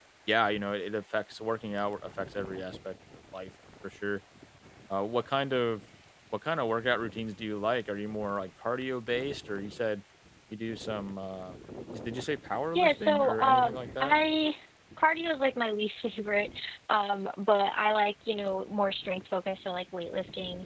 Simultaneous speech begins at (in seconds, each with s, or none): 12.7 s